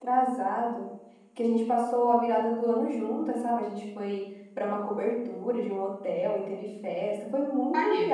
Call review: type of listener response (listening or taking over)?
listening